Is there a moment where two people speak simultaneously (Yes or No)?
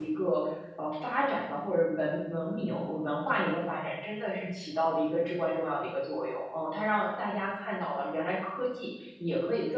No